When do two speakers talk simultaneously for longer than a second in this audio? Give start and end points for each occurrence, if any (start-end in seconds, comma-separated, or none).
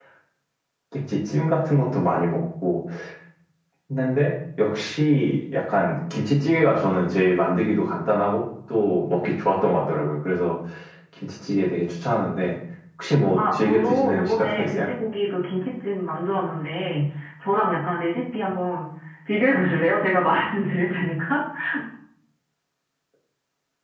13.4-14.9